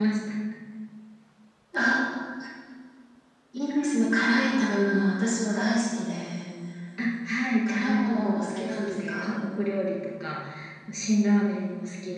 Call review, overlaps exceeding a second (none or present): present